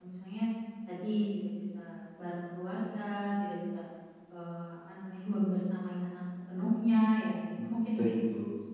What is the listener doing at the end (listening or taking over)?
taking over